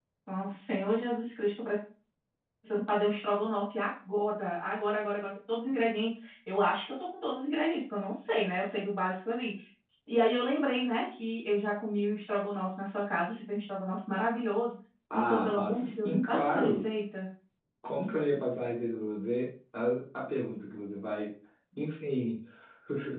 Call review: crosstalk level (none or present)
present